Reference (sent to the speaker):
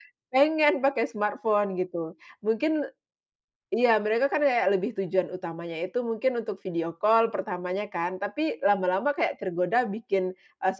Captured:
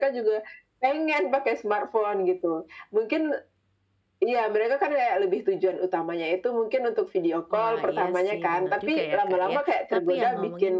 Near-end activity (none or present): present